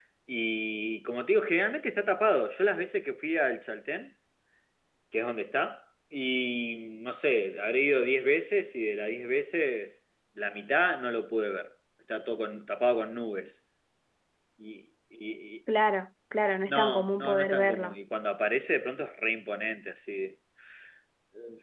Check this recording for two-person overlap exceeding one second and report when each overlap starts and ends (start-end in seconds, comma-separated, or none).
16.7-18.0